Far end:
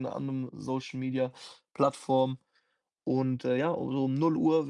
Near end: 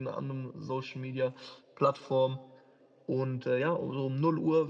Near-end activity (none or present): none